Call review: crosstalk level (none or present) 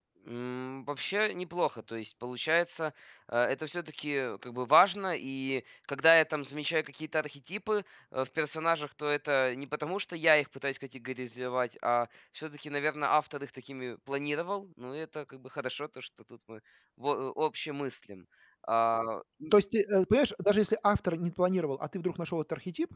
none